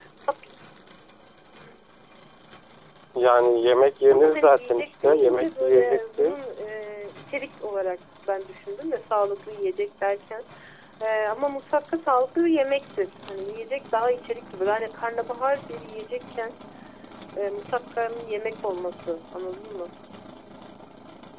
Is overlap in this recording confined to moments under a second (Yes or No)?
No